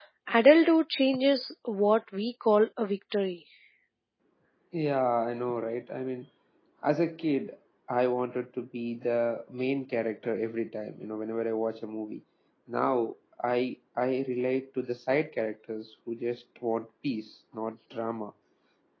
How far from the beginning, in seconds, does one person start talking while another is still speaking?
none

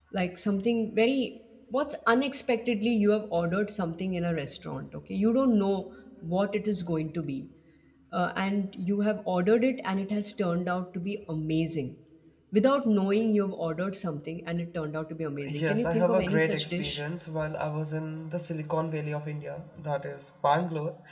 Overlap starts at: 15.4 s

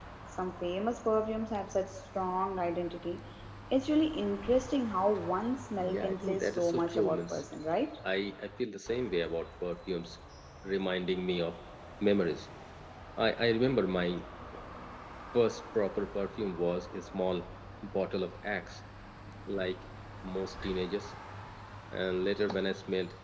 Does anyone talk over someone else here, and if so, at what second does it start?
5.8 s

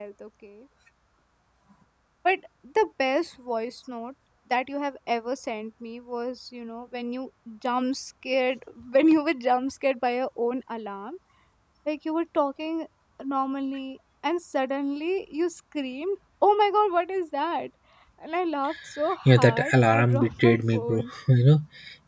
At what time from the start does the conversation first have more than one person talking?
19.2 s

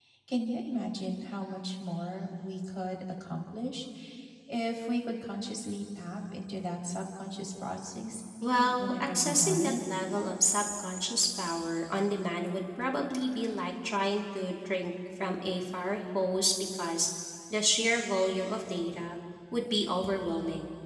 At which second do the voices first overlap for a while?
8.4 s

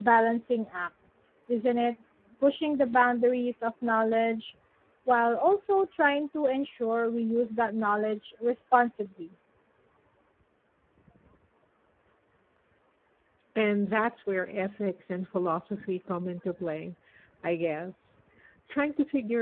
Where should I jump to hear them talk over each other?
none

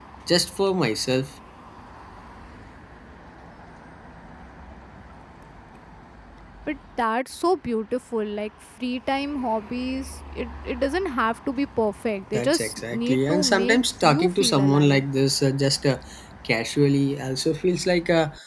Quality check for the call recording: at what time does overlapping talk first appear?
12.3 s

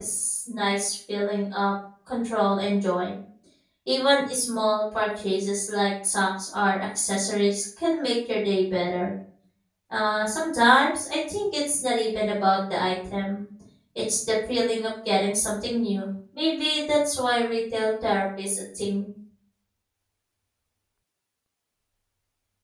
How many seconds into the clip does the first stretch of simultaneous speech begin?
none

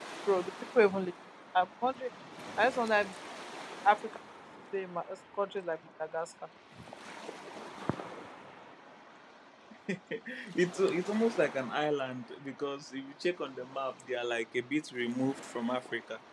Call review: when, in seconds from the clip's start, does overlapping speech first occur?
none

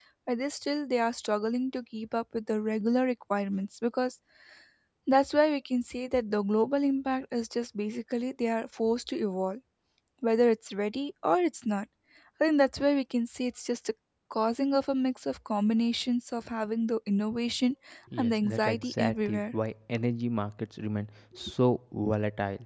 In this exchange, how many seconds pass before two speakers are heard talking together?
18.2 s

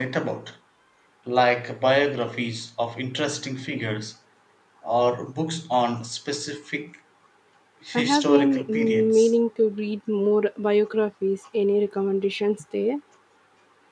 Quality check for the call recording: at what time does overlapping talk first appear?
7.9 s

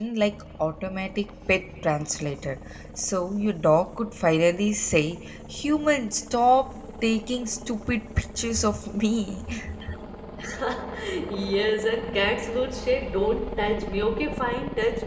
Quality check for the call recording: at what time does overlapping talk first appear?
none

